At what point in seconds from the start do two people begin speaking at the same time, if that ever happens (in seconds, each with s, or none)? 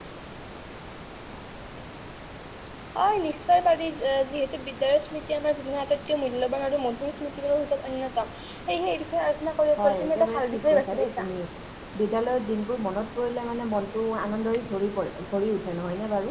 9.8 s